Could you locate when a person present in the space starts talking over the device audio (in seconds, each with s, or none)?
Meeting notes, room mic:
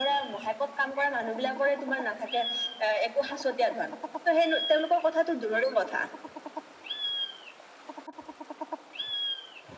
none